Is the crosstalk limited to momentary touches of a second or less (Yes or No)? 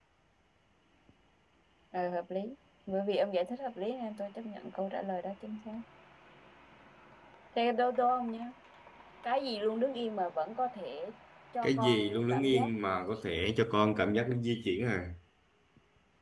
No